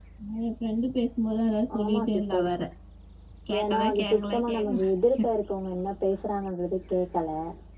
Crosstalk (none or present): present